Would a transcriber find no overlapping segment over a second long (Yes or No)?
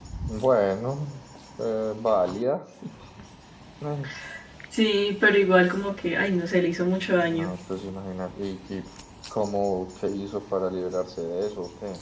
Yes